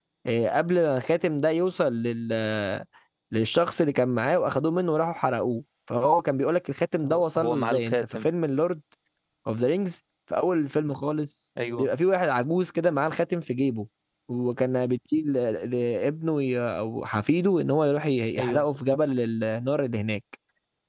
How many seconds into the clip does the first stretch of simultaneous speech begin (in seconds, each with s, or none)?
7.0 s